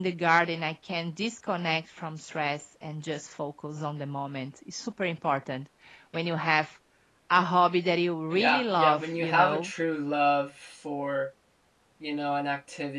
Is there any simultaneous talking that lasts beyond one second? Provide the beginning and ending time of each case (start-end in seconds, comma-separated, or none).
8.3-9.7